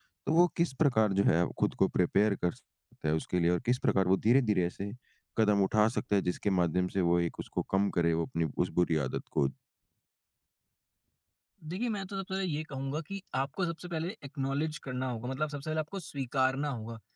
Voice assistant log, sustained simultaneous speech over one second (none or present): none